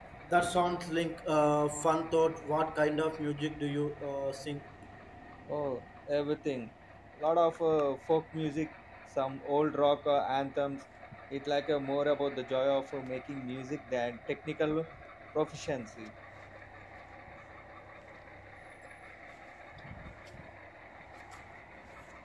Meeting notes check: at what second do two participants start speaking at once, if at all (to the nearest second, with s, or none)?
none